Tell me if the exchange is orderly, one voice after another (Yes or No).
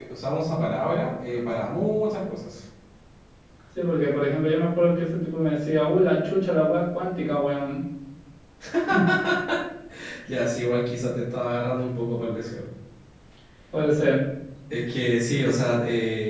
Yes